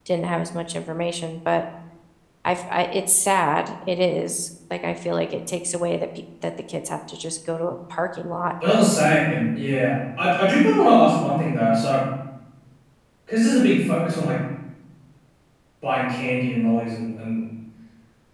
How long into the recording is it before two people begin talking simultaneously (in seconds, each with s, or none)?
none